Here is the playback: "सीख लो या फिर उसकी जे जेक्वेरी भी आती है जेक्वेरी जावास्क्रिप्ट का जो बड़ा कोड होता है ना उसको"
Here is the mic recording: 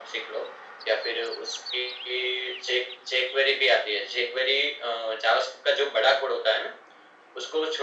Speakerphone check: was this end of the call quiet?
Yes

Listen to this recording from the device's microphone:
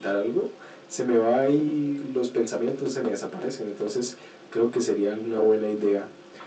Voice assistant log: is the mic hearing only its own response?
Yes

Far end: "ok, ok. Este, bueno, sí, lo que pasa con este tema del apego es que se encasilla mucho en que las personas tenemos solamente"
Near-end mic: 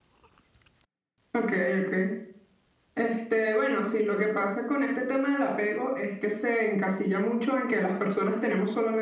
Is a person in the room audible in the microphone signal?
No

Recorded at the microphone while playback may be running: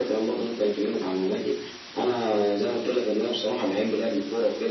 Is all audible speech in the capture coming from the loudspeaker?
Yes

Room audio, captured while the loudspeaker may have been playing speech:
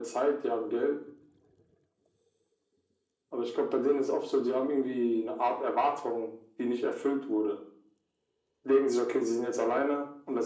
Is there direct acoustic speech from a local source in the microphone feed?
No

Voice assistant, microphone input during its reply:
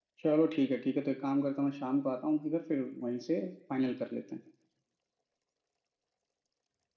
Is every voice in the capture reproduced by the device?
Yes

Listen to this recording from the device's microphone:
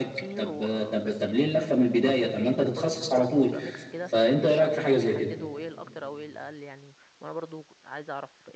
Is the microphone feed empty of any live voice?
No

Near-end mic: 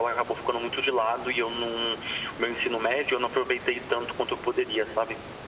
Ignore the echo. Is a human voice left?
No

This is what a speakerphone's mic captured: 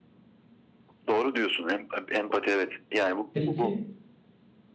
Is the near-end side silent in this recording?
No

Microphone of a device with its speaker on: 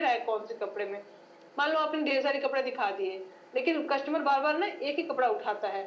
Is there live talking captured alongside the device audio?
No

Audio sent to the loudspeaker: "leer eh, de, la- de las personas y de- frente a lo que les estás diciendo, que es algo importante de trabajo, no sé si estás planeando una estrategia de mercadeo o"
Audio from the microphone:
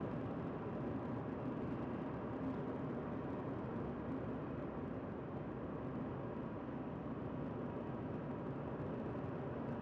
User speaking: No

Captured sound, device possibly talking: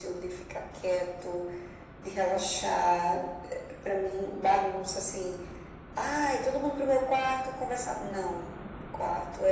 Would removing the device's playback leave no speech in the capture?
Yes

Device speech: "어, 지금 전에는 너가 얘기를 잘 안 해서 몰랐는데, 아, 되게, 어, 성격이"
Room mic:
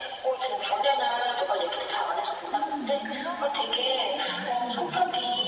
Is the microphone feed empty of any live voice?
No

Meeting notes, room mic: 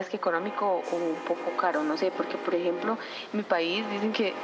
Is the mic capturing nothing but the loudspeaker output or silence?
Yes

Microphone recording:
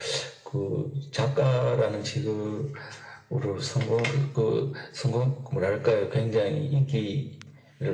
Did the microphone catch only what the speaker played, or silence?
Yes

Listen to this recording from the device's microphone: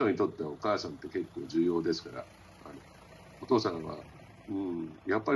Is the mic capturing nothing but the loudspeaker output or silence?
No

